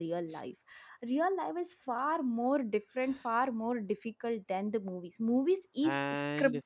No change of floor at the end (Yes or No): No